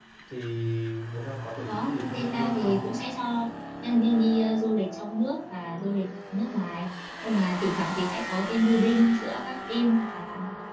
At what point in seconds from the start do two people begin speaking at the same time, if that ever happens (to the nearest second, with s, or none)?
2 s